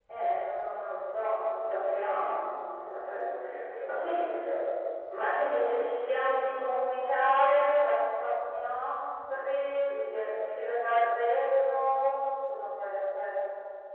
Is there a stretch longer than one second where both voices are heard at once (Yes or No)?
No